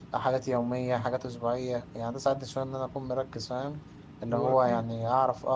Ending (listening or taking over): listening